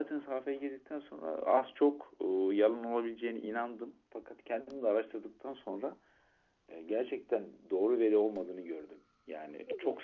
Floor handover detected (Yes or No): Yes